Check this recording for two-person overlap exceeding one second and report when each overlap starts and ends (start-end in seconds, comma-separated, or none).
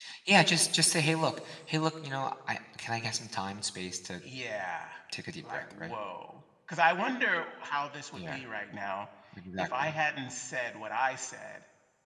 none